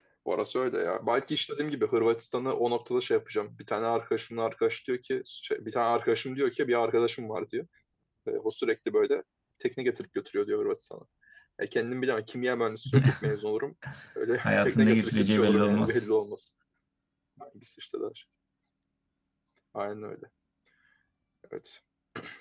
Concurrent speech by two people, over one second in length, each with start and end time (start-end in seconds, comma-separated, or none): 14.4-16.0